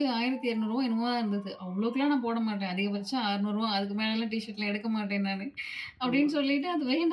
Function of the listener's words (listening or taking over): listening